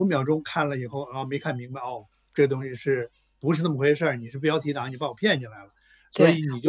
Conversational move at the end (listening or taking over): taking over